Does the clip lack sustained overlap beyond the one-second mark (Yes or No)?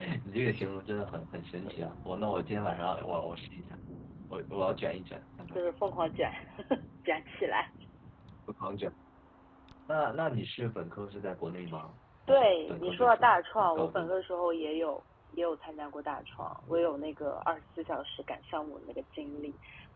No